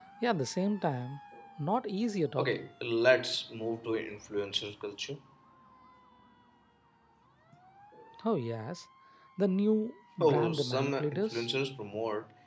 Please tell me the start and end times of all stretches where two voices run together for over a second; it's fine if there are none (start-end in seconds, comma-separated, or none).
10.2-11.5